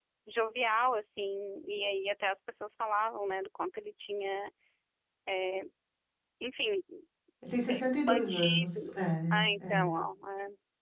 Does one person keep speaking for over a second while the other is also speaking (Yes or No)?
Yes